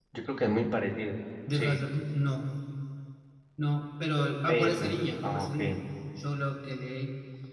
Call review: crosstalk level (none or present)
present